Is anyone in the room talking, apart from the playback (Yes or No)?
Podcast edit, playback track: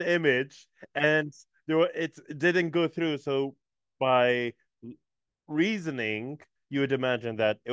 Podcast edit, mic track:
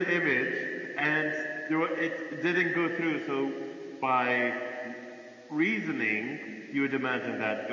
No